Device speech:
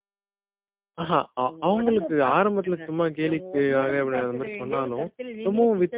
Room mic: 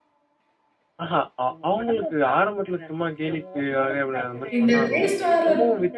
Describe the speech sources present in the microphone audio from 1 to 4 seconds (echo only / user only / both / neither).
echo only